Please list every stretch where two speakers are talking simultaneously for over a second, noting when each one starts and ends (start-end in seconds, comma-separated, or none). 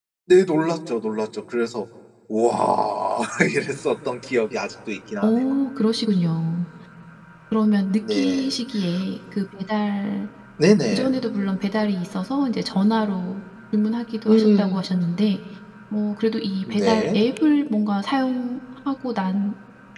none